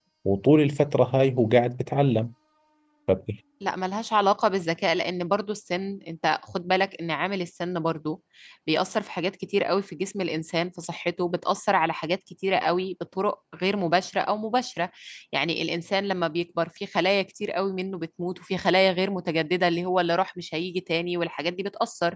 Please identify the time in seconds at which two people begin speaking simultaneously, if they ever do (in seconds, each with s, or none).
none